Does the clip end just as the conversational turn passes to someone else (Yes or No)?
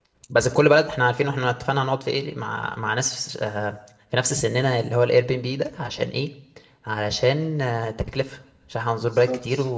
No